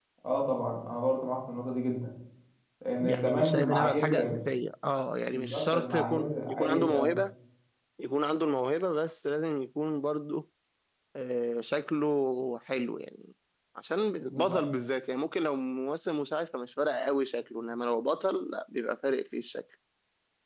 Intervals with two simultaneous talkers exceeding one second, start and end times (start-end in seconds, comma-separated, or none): 3.0-4.3, 5.3-7.2